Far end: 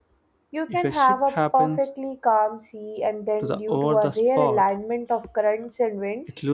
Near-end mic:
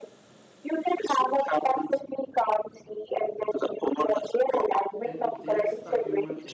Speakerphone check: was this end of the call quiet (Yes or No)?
No